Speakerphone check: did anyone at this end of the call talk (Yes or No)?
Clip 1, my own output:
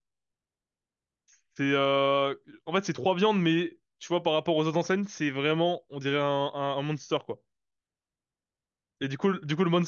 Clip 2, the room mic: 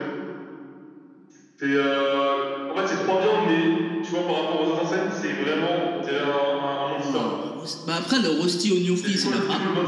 Yes